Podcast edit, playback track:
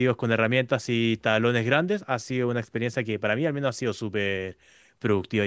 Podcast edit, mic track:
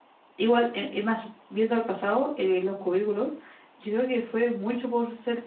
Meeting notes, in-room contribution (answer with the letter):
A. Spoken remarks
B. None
A